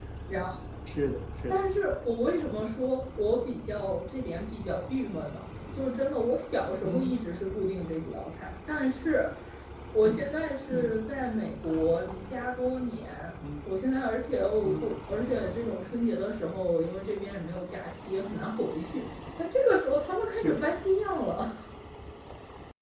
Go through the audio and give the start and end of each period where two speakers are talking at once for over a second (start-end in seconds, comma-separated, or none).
none